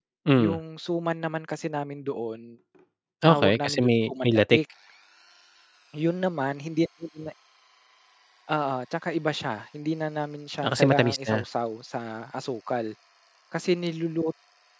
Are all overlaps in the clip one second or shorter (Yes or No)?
No